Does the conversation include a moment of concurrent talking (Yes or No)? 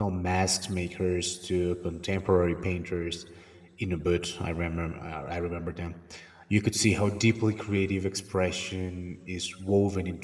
No